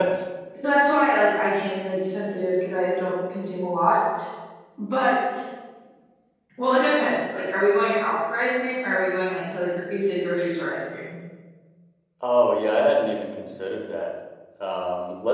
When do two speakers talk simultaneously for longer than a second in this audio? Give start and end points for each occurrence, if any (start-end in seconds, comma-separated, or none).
none